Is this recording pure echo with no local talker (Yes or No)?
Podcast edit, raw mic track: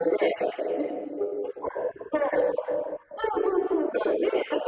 Yes